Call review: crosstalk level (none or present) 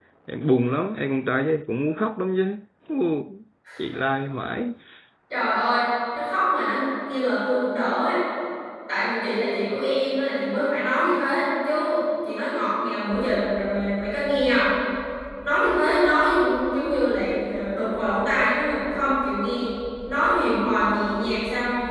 none